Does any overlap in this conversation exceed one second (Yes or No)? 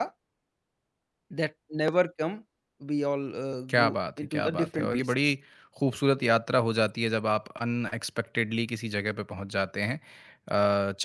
Yes